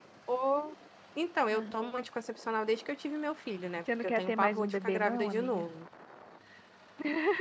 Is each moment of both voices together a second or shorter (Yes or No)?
No